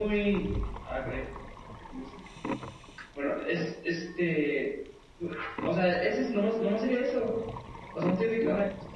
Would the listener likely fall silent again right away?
Yes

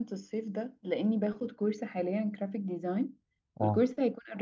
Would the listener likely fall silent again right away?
Yes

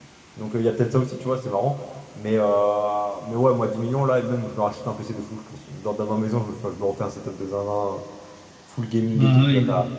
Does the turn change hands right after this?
No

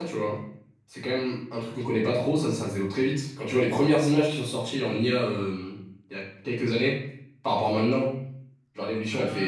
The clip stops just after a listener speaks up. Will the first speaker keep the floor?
No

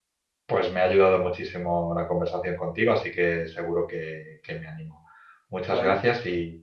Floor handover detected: No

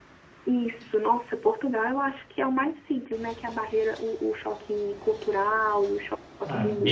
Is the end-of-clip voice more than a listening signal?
Yes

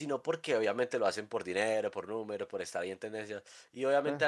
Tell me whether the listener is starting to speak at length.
No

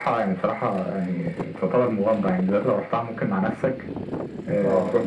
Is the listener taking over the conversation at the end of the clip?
No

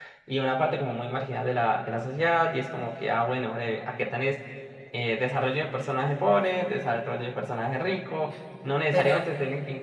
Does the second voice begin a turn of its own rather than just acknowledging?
No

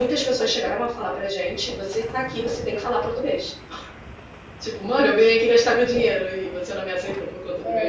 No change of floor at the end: No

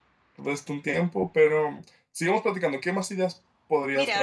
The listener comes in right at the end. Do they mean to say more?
Yes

